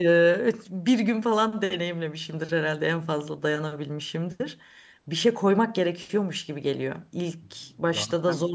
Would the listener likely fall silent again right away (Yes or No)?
Yes